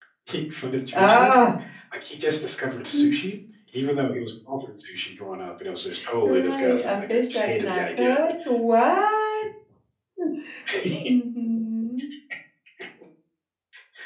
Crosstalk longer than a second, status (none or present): present